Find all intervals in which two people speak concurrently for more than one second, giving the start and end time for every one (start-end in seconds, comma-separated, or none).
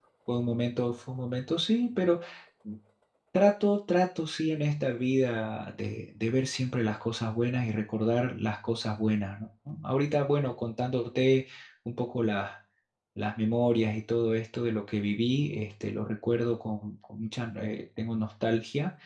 none